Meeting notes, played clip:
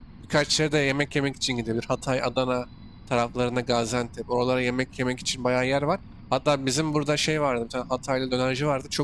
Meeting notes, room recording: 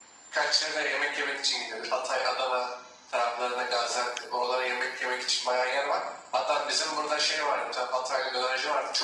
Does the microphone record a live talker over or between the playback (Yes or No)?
No